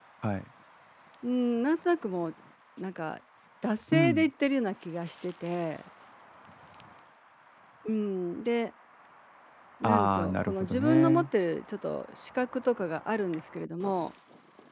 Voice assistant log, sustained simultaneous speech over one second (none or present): present